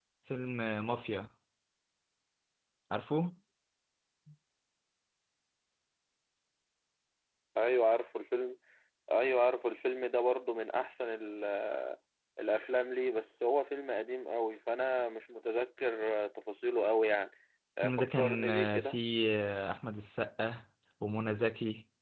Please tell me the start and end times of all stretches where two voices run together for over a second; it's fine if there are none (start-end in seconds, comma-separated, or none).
17.8-19.0